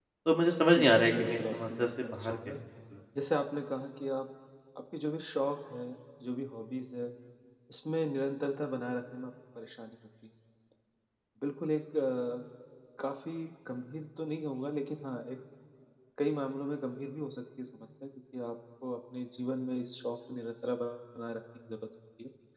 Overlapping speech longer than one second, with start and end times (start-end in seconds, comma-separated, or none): 0.7-2.4